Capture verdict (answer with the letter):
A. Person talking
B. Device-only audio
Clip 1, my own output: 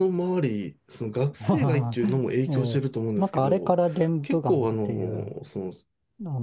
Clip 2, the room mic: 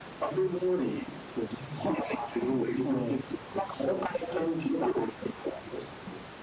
B